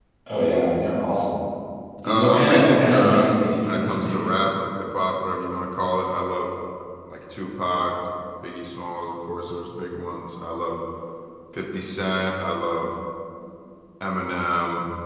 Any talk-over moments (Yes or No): Yes